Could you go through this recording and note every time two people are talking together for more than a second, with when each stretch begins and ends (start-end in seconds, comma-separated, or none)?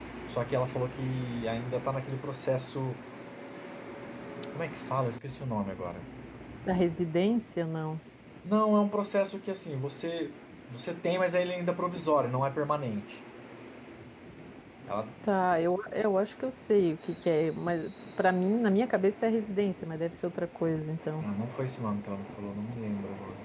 none